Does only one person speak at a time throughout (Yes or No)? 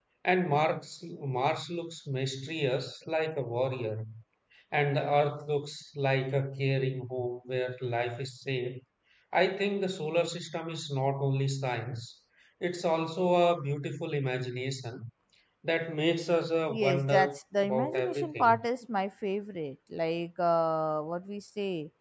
No